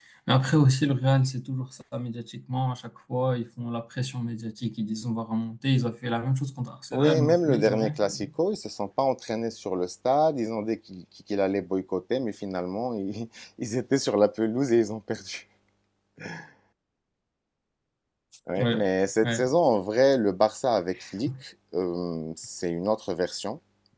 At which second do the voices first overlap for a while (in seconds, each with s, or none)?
6.9 s